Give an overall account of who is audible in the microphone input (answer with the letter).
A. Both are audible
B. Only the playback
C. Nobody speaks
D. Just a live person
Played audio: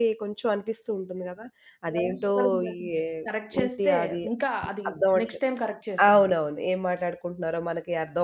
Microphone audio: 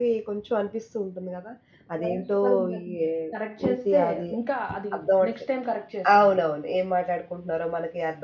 B